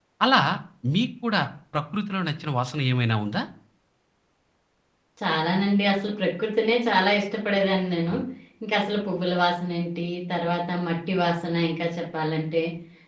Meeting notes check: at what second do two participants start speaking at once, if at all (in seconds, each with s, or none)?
none